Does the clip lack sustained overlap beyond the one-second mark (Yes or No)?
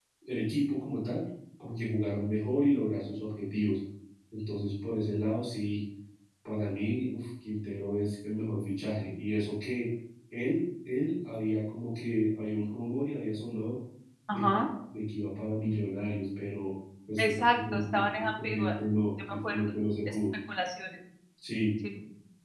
No